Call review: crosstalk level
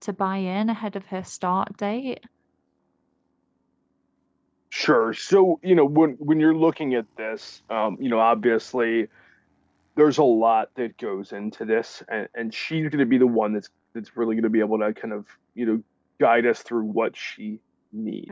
none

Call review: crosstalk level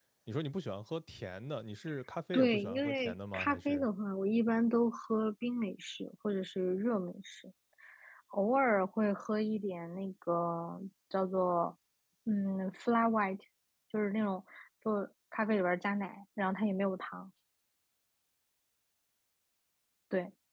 present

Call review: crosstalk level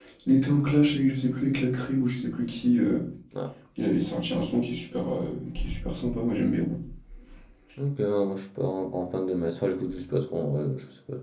none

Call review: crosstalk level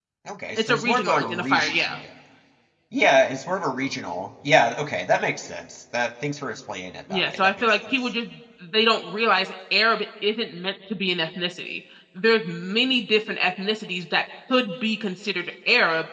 present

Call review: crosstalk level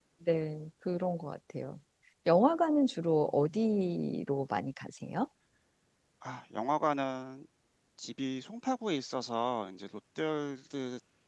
none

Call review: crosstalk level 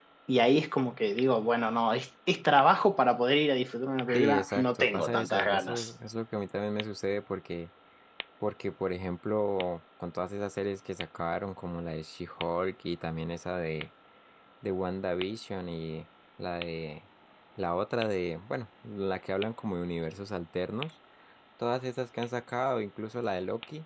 present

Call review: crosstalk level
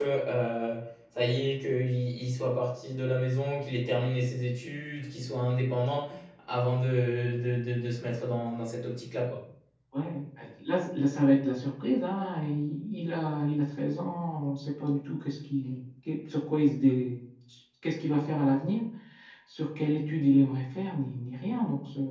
none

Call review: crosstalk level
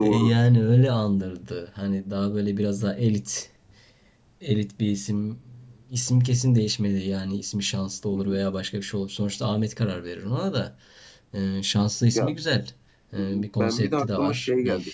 present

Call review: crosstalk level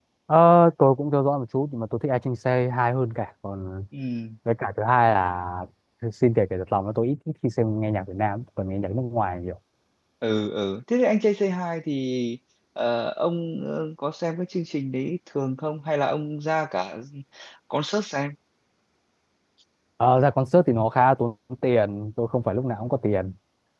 none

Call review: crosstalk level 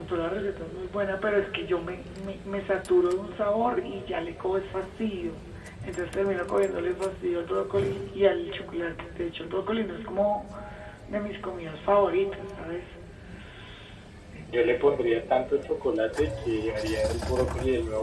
none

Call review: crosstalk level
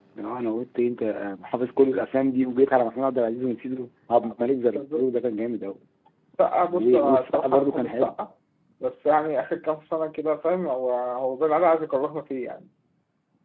present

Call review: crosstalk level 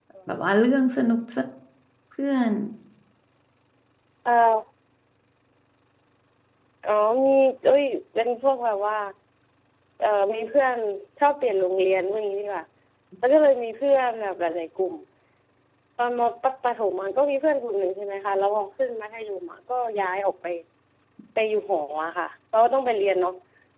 none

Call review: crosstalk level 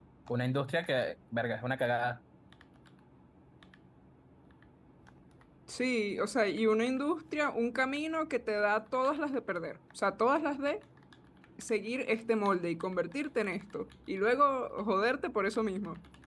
none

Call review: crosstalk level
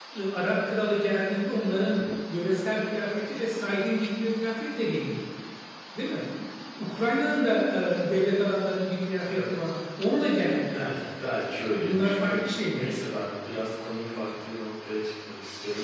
present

